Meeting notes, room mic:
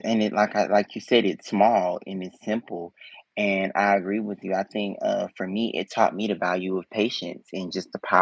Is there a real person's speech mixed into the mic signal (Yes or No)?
Yes